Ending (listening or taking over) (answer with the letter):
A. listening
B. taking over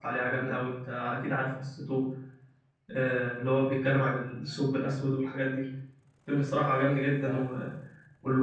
A